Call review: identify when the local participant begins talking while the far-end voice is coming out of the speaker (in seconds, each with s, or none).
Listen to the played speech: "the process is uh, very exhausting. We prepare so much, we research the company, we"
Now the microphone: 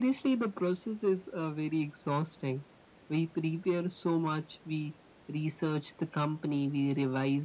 none